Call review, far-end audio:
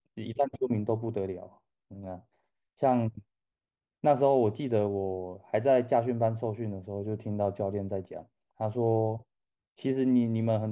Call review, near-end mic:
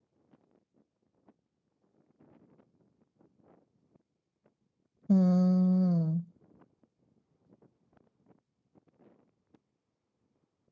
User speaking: Yes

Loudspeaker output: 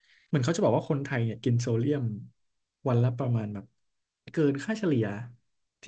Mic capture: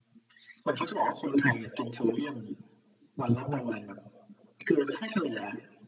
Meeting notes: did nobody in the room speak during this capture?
No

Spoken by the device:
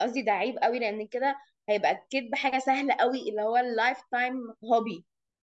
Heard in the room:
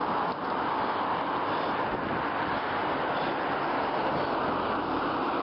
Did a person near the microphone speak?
No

